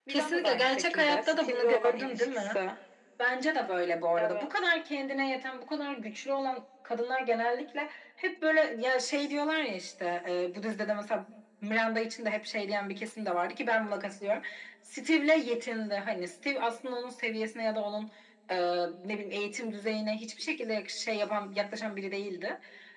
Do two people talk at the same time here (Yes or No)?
Yes